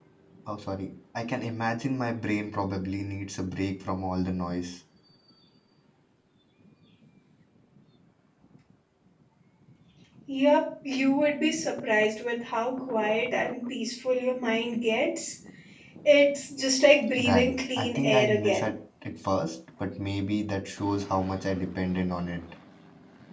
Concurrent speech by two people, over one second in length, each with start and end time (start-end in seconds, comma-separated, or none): 17.2-18.7